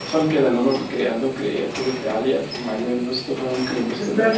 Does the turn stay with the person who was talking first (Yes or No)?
No